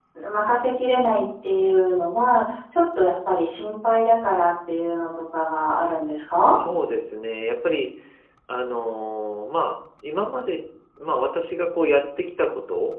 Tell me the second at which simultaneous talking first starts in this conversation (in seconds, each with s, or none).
none